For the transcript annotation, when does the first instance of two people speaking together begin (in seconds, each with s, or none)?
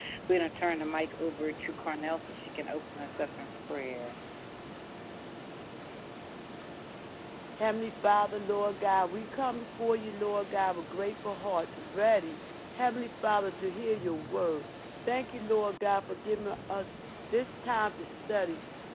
none